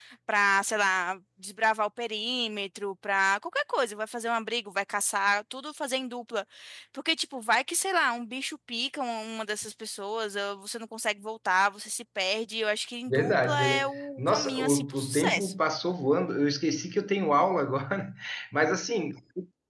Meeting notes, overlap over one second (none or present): present